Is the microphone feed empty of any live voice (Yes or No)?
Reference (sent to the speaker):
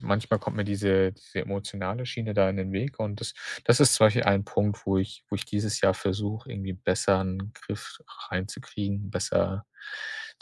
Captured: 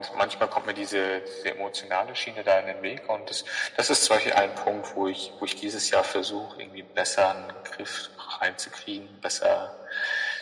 Yes